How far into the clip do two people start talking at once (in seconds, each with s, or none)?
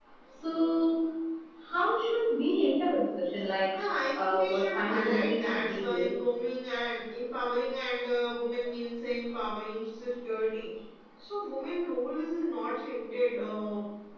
4.1 s